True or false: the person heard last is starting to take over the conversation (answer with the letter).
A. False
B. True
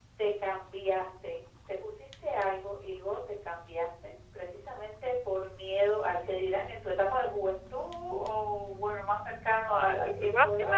B